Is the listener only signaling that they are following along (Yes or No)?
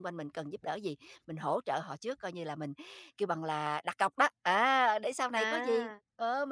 Yes